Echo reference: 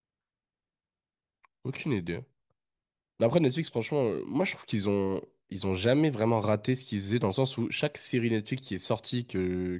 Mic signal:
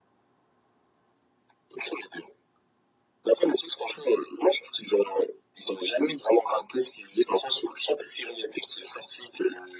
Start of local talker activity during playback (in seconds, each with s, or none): none